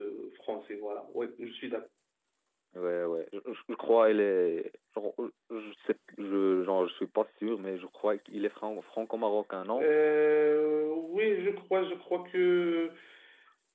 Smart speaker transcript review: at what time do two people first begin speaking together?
none

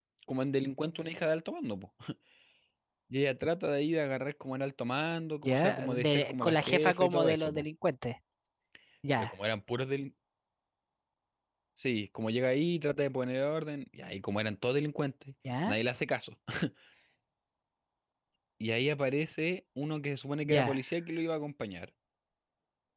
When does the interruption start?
5.5 s

